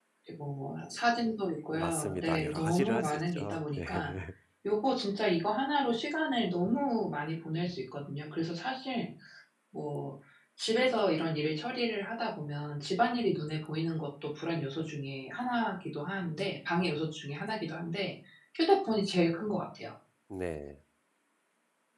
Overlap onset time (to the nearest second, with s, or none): 2 s